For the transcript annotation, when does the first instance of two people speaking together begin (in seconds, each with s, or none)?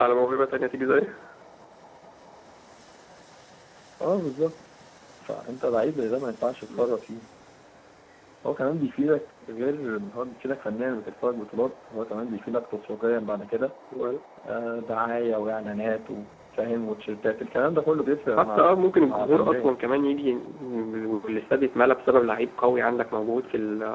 18.3 s